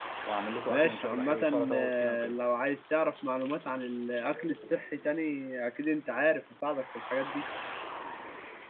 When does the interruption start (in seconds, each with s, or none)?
0.7 s